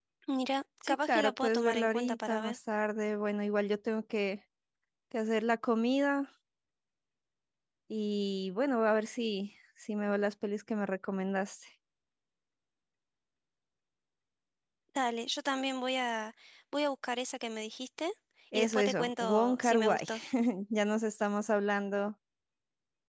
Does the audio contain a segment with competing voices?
Yes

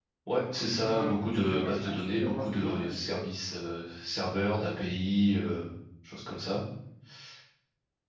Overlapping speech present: Yes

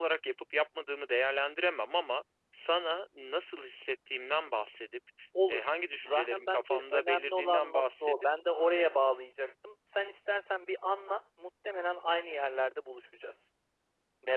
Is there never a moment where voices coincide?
No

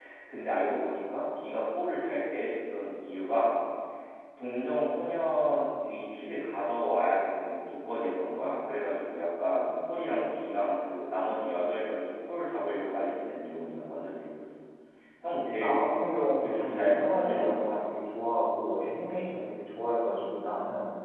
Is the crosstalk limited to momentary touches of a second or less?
No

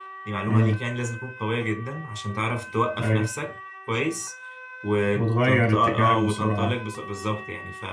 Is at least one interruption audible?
Yes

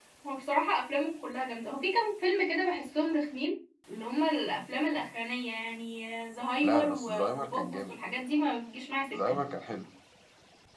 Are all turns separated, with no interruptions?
No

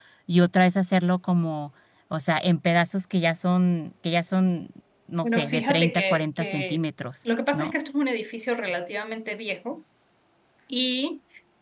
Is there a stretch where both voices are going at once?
Yes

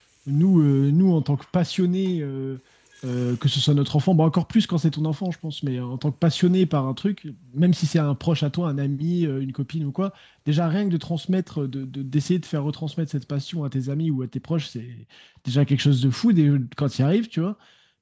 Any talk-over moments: No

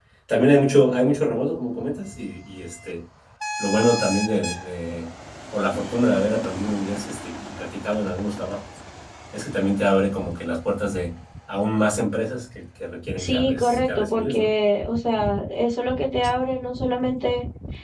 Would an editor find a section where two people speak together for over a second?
Yes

